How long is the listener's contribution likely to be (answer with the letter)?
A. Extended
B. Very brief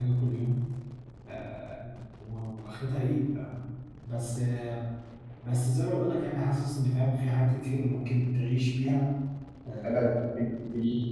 A